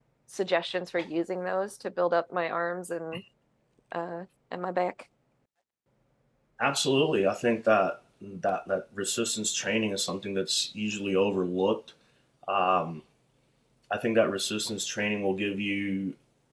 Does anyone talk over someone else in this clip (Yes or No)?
No